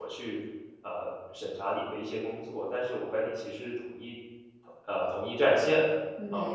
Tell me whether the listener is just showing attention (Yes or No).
Yes